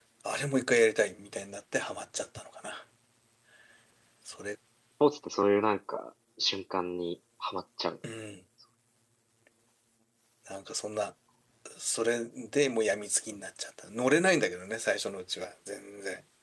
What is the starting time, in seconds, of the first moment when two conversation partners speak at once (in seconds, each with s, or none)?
none